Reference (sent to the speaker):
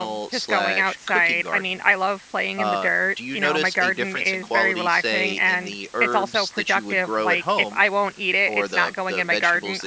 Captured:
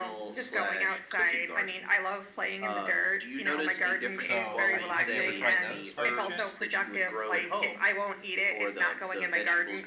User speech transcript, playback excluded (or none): So, I have you ever tried those by any chance?